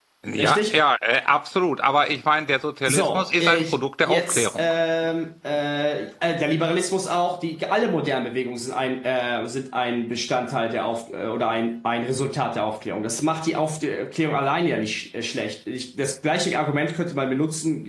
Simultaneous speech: Yes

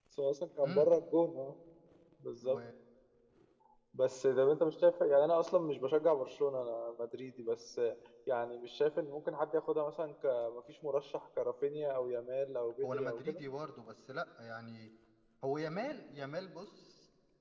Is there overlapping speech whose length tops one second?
No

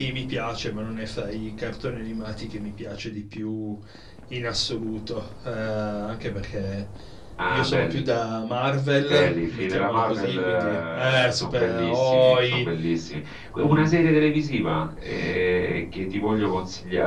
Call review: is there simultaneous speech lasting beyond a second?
Yes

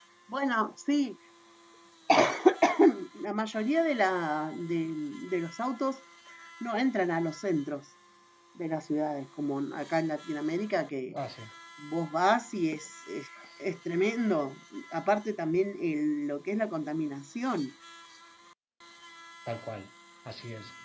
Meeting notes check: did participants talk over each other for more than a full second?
No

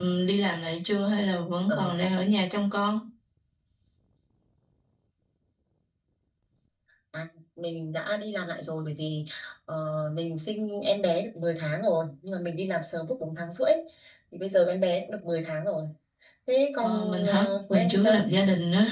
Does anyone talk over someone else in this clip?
Yes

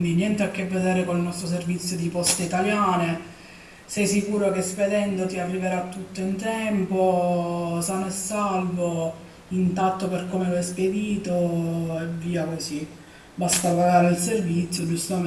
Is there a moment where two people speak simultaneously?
No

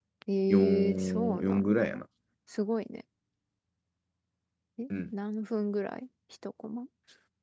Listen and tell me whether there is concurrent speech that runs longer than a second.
Yes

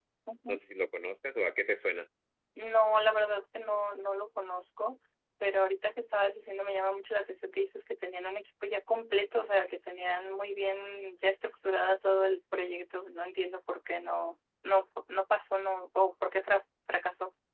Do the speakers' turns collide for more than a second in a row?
No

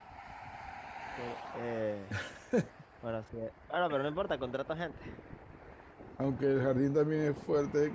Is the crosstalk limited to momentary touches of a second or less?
Yes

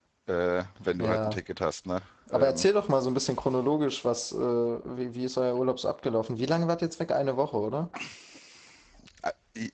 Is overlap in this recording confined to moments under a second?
Yes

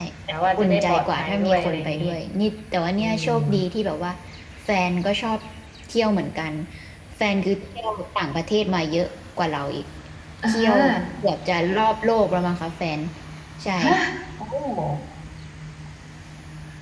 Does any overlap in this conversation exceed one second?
Yes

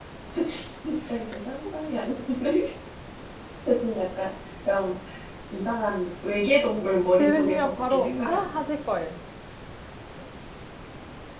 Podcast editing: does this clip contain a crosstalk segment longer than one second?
Yes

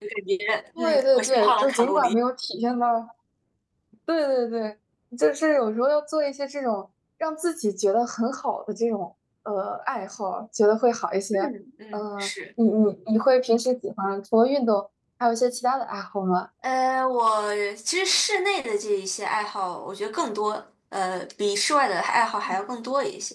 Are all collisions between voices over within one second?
No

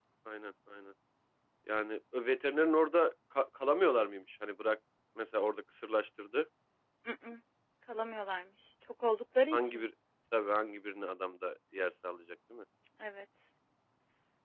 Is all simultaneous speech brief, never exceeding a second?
Yes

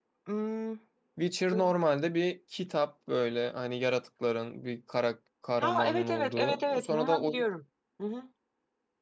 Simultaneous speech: Yes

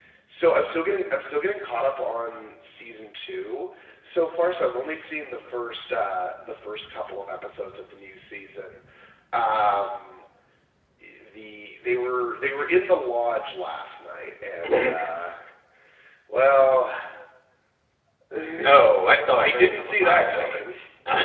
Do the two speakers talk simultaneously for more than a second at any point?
Yes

